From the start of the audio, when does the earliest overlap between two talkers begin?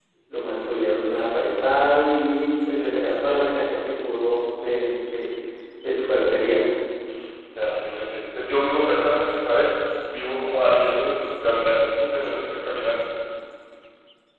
none

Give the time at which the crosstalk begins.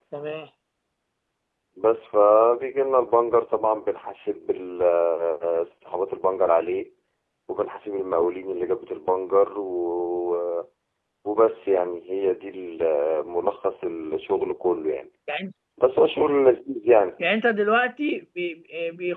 none

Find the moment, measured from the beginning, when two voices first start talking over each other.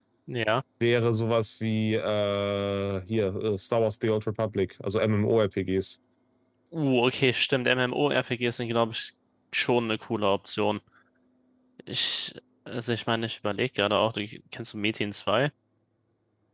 none

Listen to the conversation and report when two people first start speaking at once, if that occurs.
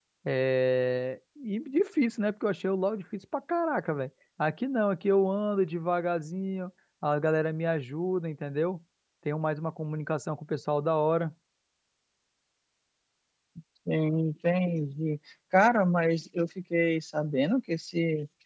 none

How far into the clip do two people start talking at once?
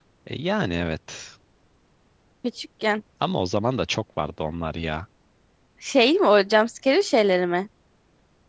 none

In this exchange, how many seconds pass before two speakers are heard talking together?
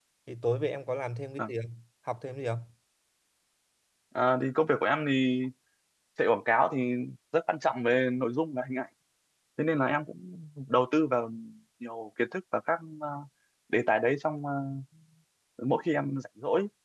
none

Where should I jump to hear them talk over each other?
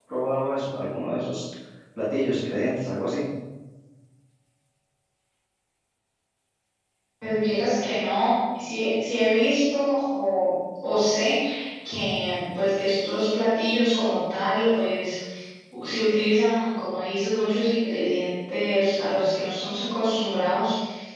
none

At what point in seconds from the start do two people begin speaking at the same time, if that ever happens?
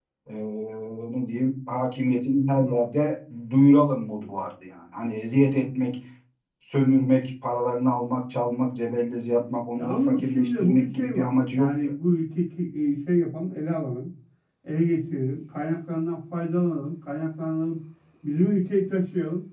9.8 s

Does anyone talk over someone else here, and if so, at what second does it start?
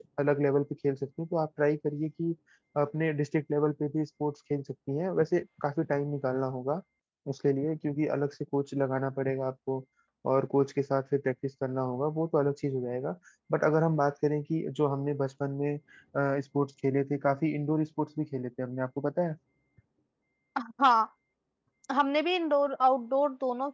none

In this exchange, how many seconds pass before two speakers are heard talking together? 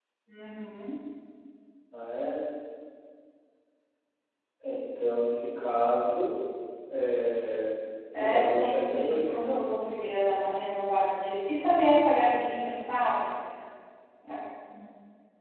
8.1 s

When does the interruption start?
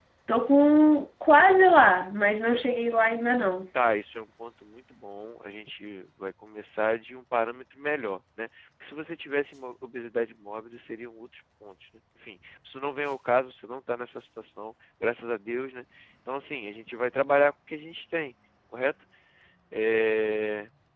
none

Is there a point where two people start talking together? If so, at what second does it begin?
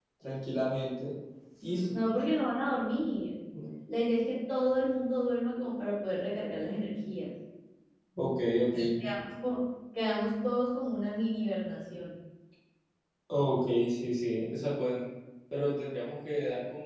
none

